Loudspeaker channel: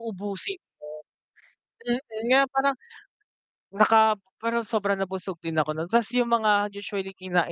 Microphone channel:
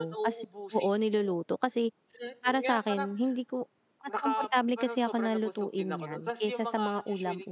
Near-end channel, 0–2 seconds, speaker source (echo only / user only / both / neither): both